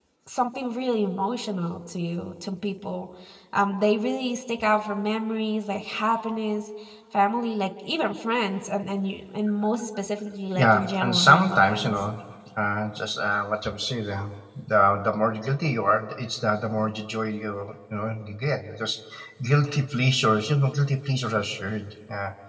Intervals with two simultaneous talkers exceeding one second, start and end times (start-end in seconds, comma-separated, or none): 10.6-12.0